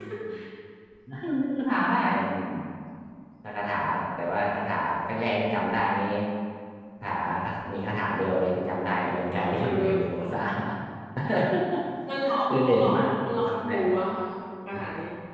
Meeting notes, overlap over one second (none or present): present